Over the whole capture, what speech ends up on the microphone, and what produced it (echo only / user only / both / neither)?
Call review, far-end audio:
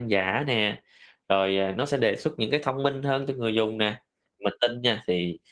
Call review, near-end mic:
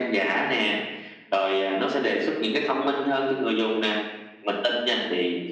echo only